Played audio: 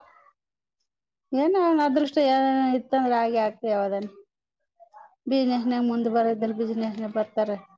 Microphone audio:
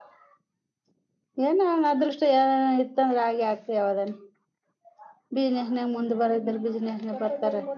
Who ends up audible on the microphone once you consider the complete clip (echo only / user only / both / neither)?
both